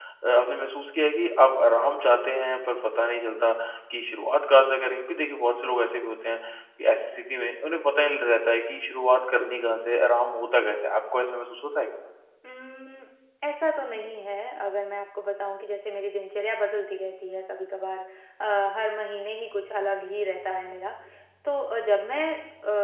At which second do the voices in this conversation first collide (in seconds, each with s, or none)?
none